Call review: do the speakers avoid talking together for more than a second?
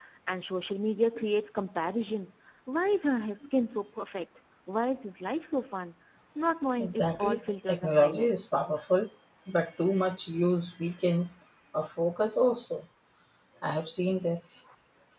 No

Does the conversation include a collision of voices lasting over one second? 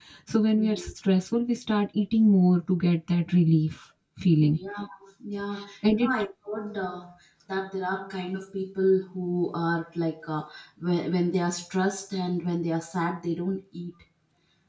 No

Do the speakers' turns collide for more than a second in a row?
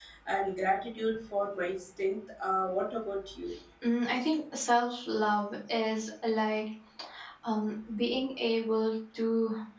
No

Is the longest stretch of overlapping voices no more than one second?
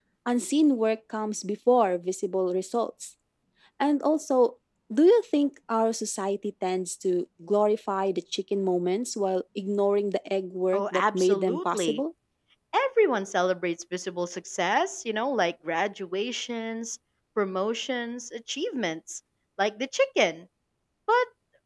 No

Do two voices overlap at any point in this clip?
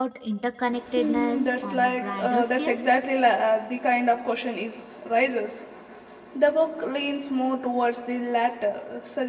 Yes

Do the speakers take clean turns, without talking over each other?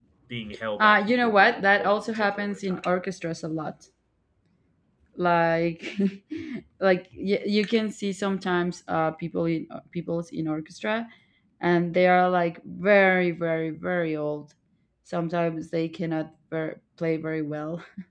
No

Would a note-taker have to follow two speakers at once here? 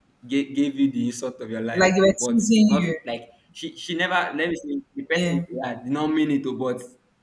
Yes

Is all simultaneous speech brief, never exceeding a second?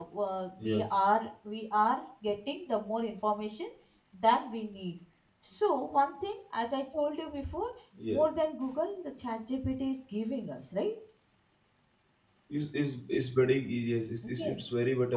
Yes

